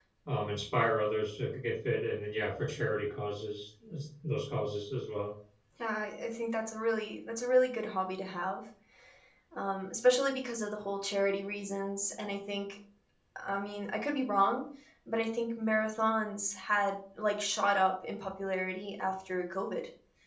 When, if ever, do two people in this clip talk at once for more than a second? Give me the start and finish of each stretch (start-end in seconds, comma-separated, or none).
none